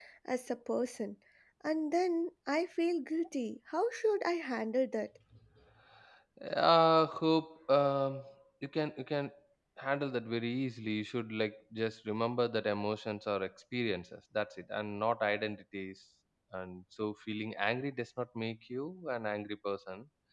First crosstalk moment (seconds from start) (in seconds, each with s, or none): none